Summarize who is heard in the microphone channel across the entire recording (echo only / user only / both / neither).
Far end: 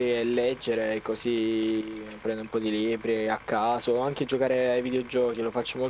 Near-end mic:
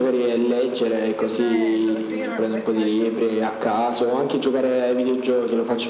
both